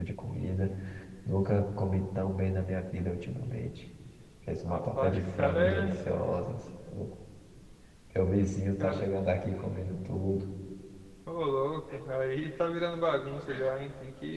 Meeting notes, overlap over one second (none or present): present